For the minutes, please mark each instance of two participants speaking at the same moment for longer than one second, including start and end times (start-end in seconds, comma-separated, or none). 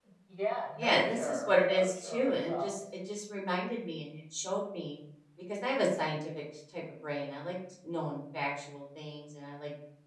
0.8-2.8